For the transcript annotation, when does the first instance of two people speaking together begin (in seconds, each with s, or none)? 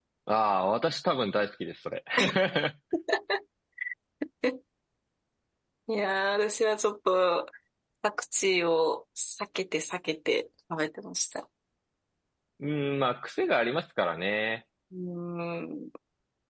none